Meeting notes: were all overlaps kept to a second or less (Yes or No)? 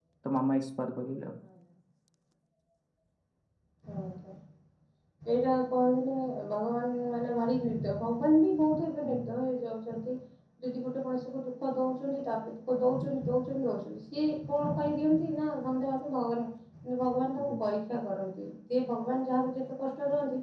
Yes